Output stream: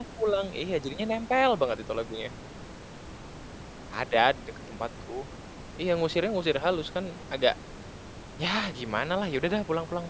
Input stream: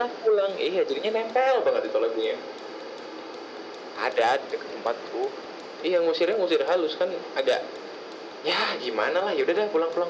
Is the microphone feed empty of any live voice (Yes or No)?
Yes